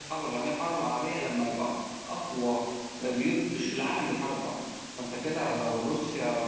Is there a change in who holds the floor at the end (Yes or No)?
No